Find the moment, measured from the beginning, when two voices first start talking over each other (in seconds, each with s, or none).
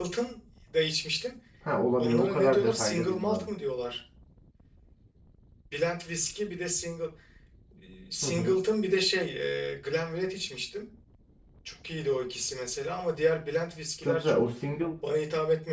2.0 s